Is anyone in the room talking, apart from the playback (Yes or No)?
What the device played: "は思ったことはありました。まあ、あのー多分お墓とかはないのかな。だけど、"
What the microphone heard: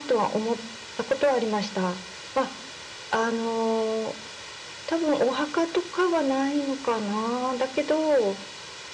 No